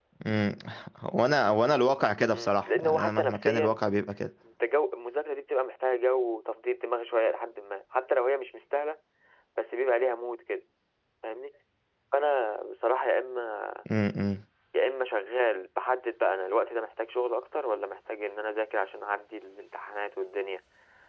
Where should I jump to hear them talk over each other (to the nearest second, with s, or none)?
2 s